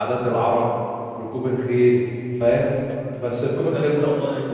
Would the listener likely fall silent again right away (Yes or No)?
No